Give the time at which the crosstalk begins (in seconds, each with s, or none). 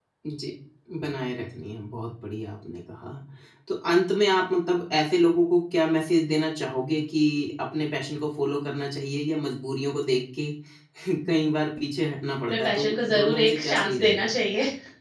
12.5 s